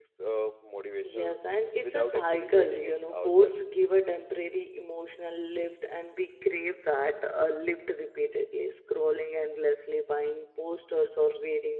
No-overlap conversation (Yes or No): No